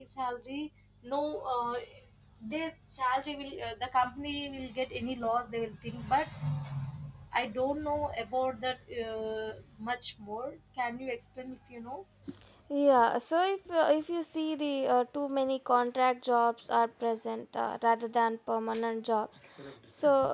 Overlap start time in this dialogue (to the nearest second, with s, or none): none